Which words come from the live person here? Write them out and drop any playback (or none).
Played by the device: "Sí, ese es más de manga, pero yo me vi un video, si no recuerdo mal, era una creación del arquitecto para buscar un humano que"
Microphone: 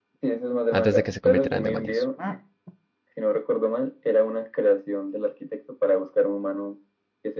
antes de que se convirtieran en demonios?